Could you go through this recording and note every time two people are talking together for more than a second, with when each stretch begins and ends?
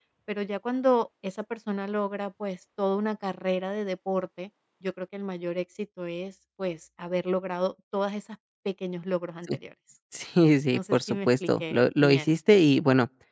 10.7-12.3

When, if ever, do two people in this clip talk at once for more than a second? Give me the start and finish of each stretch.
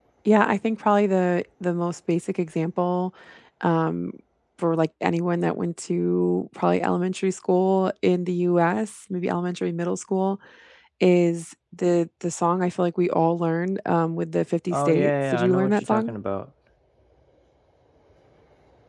14.7-16.1

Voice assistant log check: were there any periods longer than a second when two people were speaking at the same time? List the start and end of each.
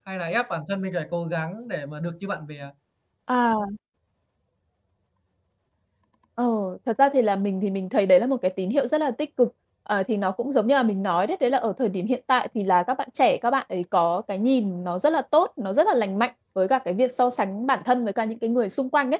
none

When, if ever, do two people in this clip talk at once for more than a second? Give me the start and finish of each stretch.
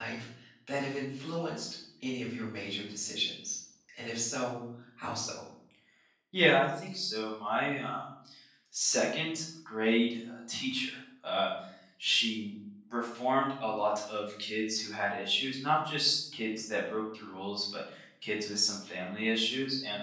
none

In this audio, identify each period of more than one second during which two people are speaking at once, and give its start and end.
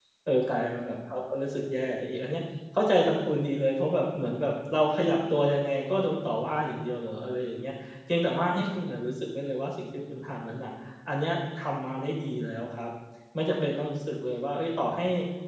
none

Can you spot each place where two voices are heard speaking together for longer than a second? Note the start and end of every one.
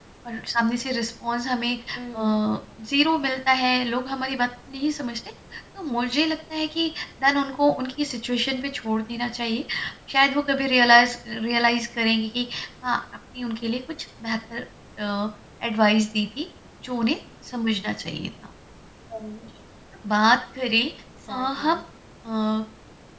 none

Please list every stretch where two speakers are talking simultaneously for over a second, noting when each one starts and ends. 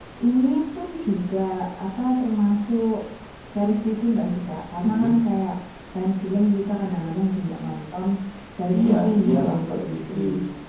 8.7-10.2

